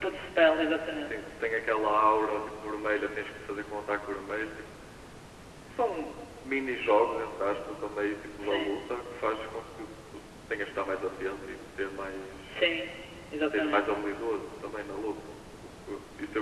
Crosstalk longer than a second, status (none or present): none